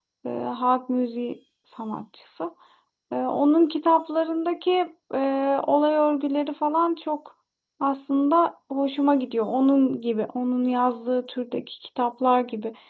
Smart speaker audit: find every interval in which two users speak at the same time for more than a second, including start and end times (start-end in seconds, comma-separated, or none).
none